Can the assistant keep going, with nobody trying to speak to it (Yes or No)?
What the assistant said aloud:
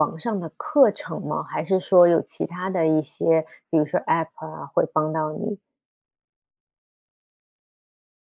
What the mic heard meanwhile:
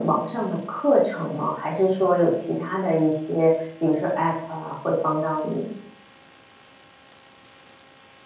Yes